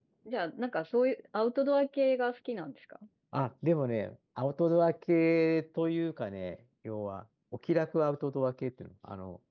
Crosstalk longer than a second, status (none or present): none